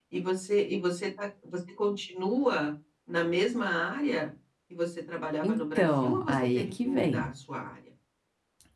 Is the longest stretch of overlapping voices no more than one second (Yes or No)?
No